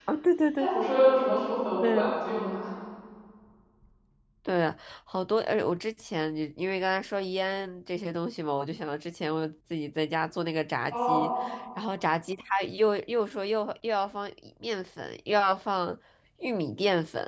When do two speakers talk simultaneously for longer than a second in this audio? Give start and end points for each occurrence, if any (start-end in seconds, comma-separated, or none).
none